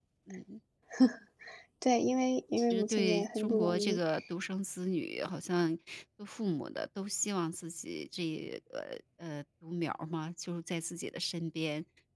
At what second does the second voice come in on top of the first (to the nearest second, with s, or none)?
3 s